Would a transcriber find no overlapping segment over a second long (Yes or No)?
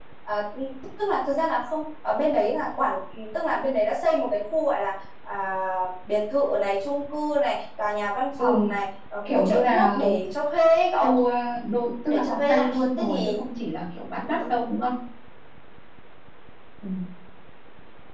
No